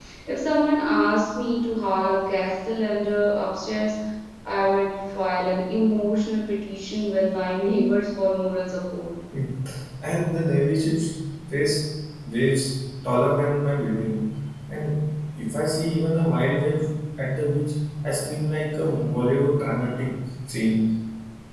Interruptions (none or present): none